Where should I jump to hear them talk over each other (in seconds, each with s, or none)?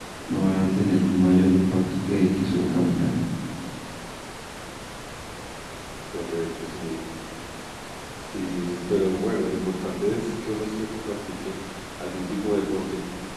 none